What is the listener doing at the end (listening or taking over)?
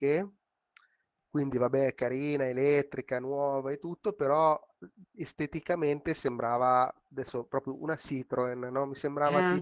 listening